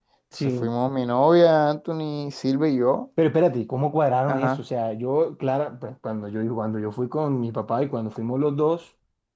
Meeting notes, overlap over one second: none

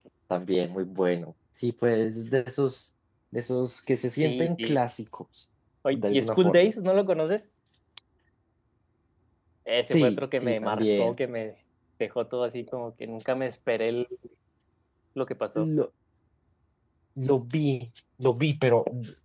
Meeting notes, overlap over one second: present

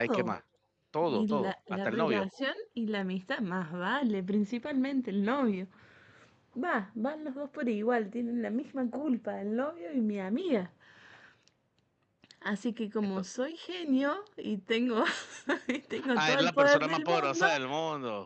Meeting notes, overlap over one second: present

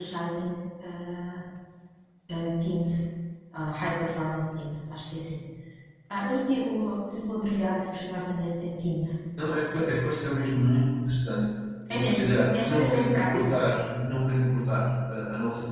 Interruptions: present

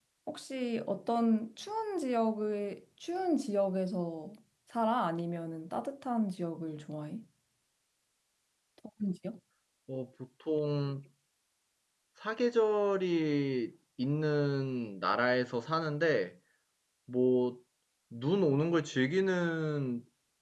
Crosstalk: none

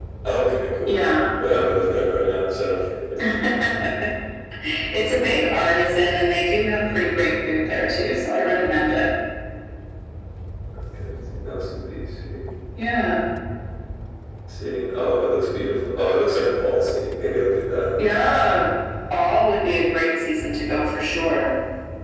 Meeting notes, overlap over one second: none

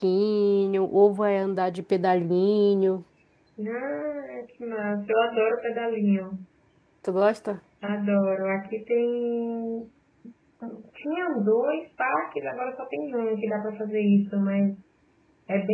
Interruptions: none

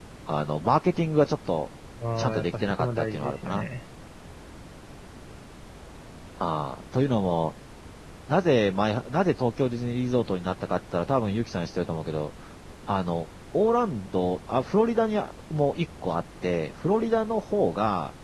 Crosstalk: present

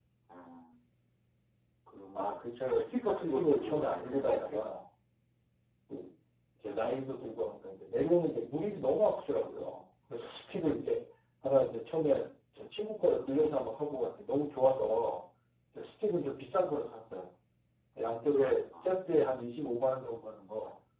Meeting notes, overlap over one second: present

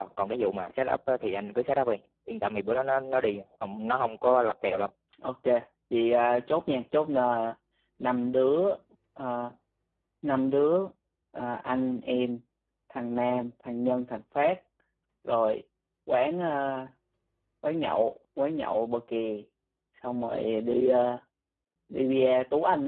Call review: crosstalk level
none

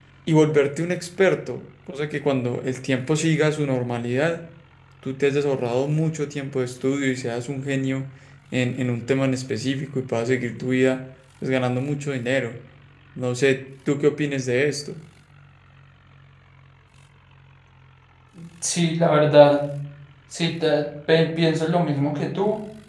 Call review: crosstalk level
none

